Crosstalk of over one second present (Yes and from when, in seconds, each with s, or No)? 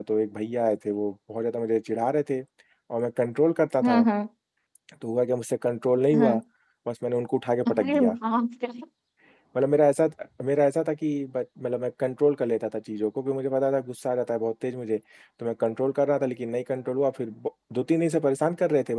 No